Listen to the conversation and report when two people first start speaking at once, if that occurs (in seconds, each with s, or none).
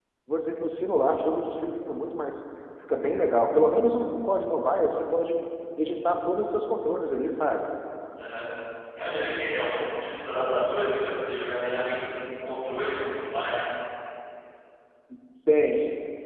none